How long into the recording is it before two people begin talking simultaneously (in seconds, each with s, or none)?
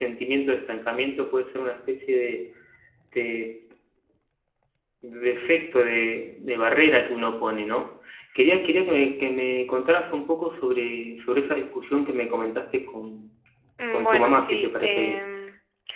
13.9 s